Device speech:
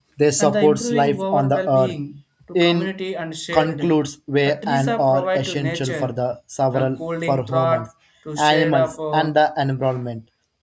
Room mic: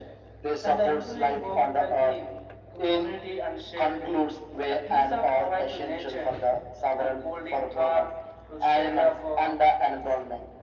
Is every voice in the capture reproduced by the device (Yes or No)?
Yes